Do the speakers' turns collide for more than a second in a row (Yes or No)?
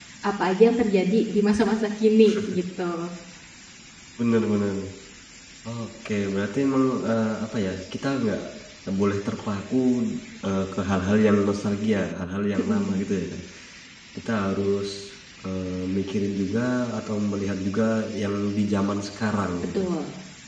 No